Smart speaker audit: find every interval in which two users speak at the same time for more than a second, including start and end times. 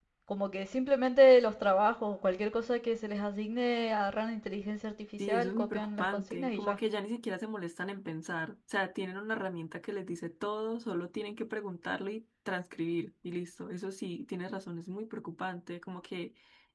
5.3-6.8

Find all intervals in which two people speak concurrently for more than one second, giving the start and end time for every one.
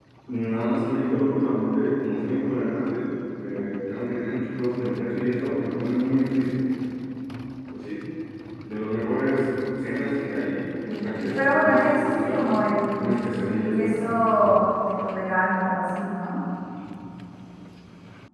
10.9-12.5

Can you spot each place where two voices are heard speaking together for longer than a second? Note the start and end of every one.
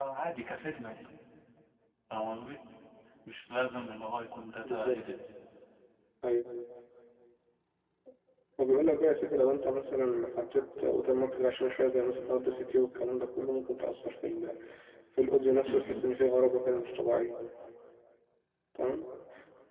none

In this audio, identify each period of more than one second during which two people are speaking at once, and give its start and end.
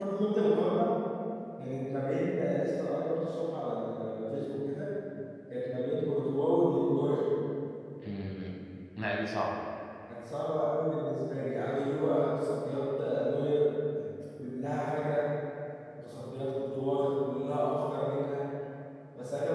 none

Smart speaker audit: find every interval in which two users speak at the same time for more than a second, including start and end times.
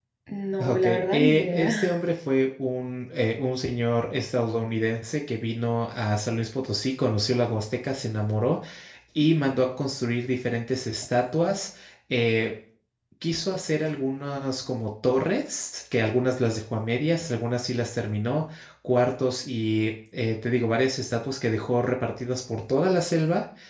0.6-2.0

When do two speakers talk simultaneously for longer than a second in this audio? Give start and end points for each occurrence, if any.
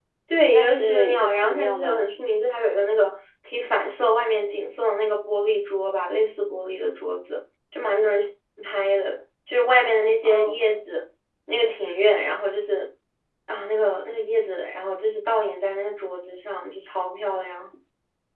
0.5-2.1

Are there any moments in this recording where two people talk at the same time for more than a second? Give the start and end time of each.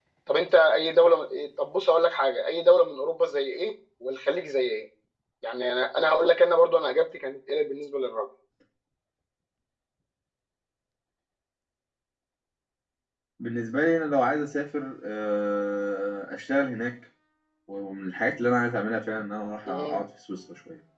none

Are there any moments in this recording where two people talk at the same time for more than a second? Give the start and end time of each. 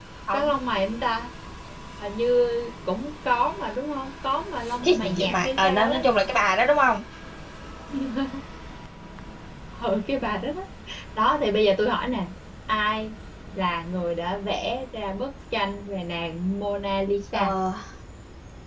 4.8-6.0

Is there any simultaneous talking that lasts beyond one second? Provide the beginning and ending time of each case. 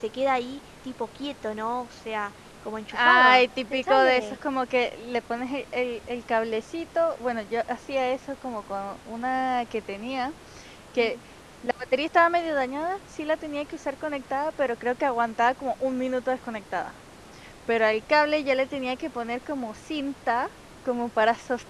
2.9-4.2

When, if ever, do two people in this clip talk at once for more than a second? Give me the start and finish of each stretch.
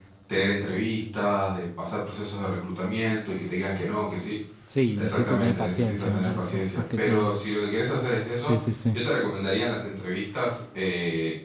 5.0-7.3

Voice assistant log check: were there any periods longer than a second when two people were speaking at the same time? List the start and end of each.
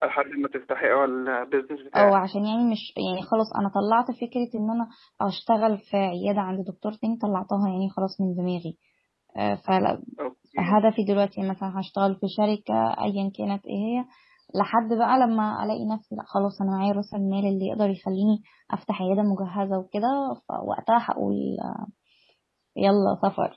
none

